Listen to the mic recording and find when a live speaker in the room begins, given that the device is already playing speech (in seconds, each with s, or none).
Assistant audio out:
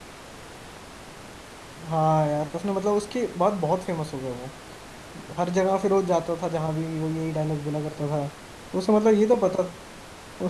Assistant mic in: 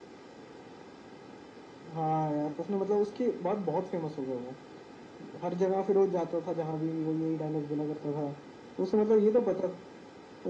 none